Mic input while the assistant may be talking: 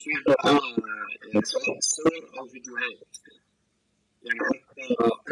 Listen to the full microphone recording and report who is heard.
echo only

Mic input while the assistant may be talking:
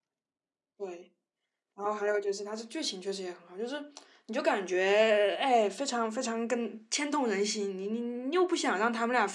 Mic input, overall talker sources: user only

